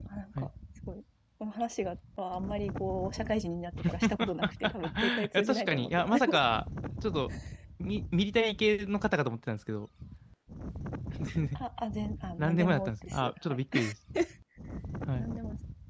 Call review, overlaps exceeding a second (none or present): present